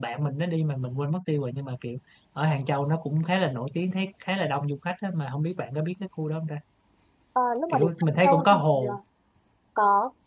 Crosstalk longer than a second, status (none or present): present